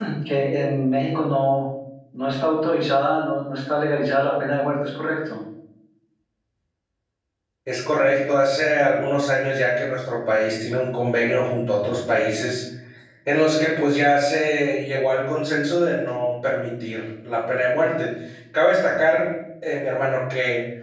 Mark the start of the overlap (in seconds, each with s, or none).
none